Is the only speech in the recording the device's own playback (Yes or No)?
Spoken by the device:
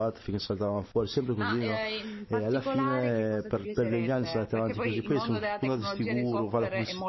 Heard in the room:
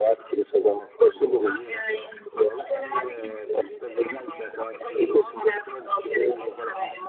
Yes